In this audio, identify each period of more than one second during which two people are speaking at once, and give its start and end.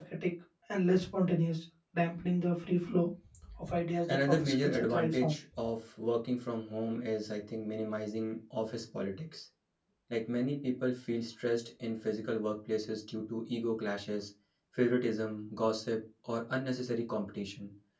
4.1-5.3

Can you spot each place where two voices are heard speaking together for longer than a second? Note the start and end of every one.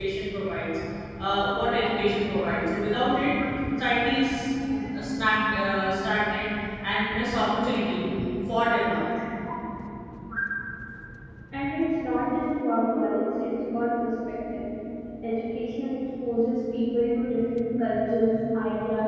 none

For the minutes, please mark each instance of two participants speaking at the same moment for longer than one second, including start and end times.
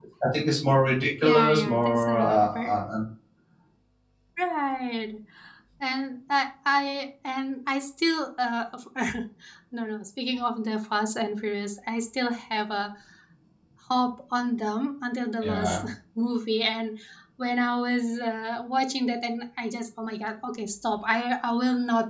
1.2-2.8

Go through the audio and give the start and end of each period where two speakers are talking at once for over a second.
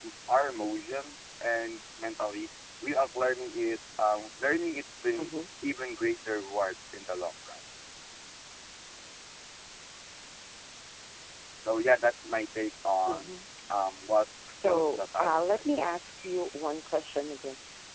14.6-15.9

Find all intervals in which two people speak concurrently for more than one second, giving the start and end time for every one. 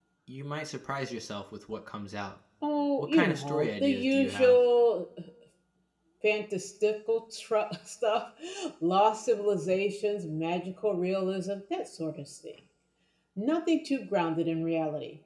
3.0-4.6

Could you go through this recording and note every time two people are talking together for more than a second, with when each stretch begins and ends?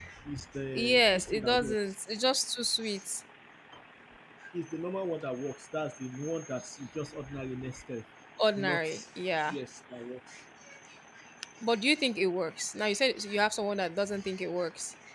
0.7-2.0

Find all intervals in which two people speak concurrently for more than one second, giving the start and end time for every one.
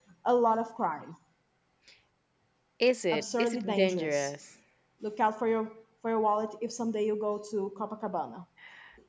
3.1-4.3

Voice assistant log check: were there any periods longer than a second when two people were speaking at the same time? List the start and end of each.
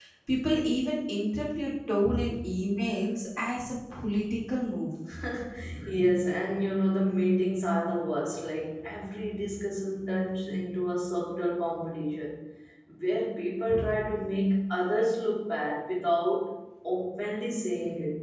none

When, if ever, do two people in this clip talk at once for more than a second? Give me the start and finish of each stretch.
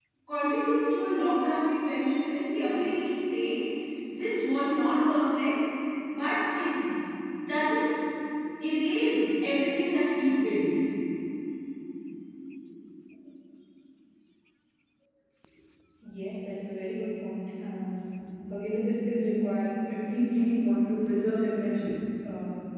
none

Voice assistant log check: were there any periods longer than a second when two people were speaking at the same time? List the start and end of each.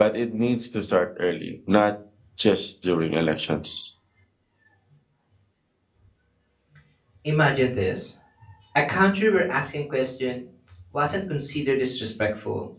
none

